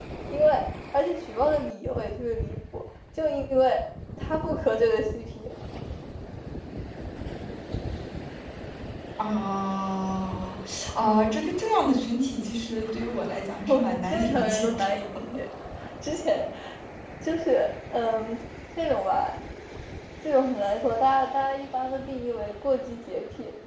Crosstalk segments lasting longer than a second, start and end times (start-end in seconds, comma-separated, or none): 13.7-14.9